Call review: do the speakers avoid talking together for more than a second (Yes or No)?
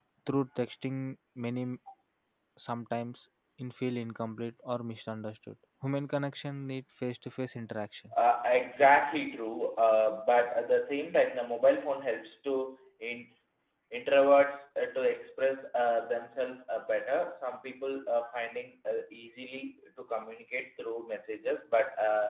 Yes